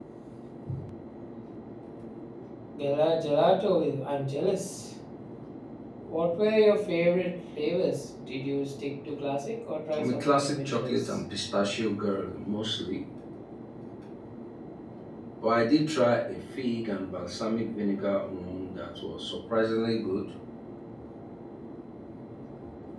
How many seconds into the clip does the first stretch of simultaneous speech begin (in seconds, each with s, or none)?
9.9 s